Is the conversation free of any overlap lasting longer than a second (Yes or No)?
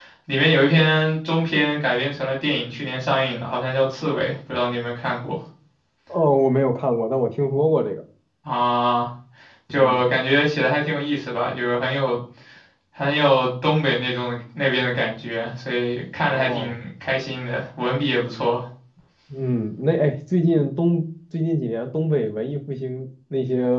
Yes